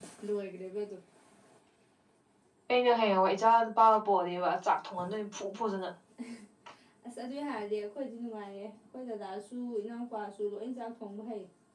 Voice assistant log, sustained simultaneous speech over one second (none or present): none